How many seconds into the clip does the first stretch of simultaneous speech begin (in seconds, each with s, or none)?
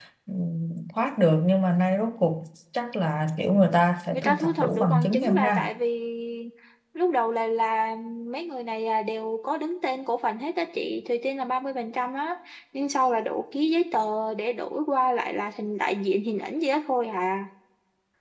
4.1 s